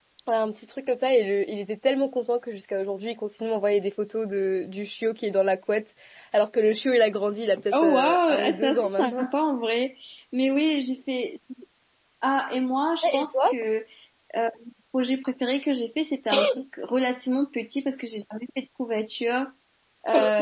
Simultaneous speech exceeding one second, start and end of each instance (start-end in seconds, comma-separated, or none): 7.7-9.2